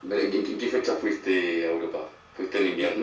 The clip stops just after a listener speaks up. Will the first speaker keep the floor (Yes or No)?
No